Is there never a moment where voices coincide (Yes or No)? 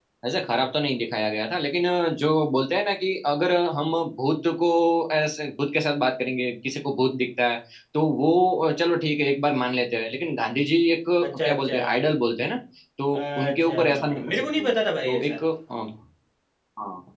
No